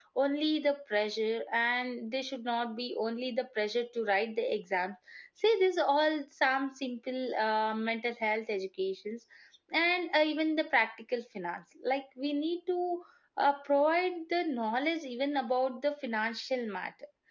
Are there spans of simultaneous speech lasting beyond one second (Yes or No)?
No